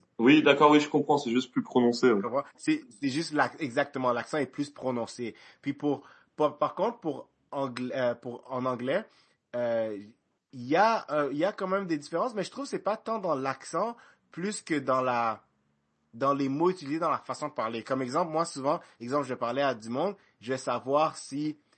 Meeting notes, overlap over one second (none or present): none